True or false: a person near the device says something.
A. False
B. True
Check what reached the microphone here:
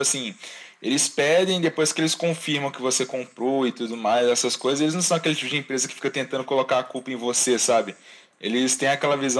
A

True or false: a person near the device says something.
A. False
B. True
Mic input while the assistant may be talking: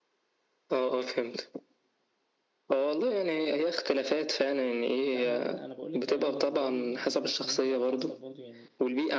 B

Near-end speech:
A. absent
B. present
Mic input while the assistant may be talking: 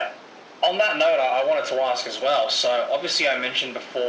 A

